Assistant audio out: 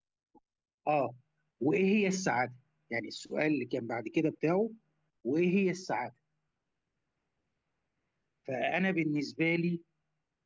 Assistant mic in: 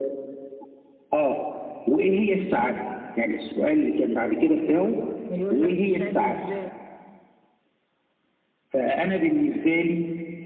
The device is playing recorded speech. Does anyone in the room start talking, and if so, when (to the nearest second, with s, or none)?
5 s